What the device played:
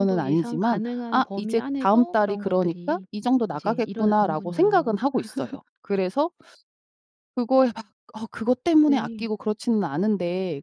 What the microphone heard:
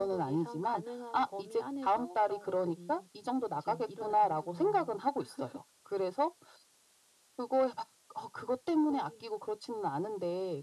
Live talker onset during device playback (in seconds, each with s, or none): none